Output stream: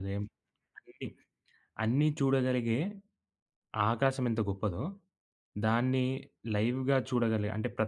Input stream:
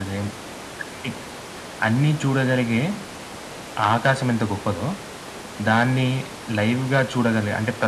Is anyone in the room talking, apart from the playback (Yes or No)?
No